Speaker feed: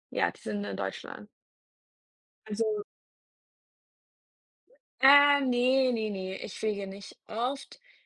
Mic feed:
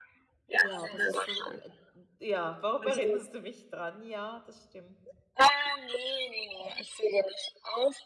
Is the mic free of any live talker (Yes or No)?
No